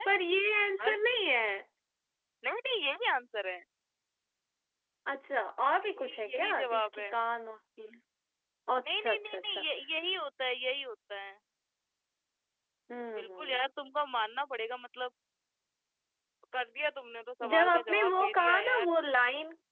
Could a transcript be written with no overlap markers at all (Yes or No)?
No